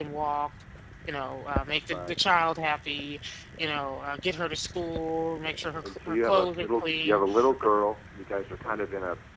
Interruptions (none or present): present